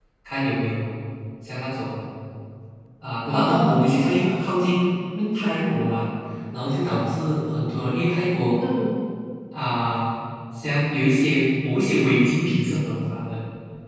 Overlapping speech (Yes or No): Yes